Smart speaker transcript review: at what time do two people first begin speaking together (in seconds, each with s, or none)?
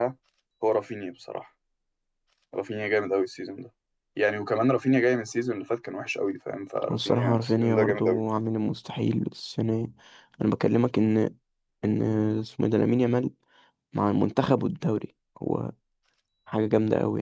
6.8 s